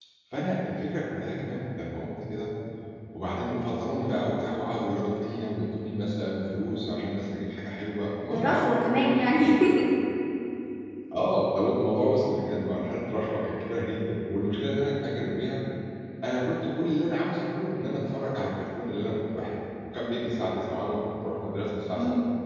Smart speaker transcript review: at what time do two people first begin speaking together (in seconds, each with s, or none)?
8.3 s